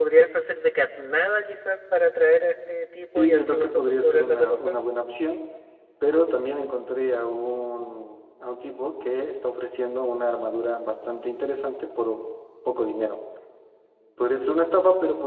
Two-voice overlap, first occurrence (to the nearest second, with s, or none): 3 s